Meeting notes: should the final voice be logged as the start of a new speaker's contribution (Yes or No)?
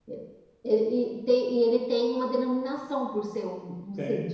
Yes